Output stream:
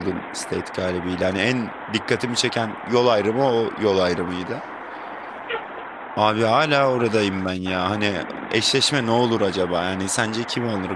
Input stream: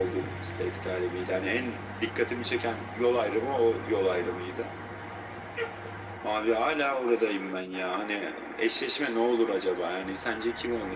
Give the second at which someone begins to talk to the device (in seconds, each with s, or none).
none